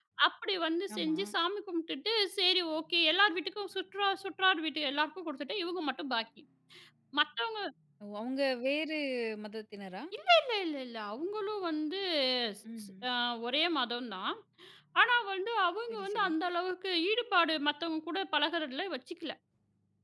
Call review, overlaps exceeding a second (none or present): none